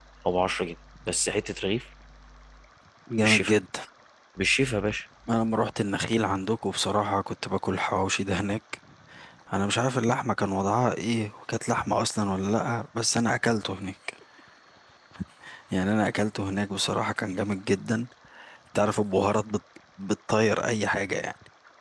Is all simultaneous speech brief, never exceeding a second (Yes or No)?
Yes